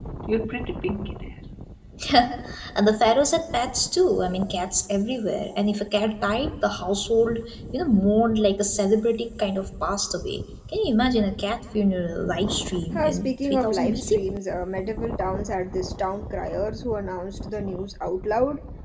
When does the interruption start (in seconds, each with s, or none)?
12.9 s